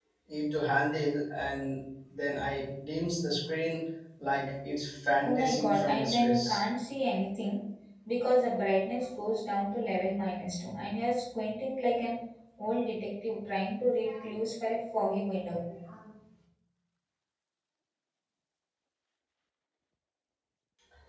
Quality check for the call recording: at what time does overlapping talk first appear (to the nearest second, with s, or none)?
5 s